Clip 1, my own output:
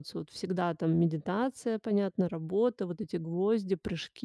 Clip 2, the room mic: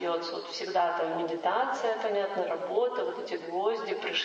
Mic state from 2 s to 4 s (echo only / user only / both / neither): echo only